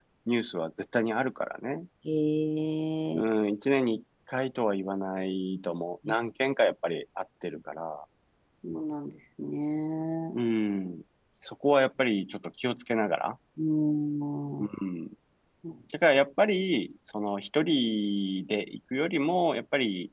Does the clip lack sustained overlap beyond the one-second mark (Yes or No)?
Yes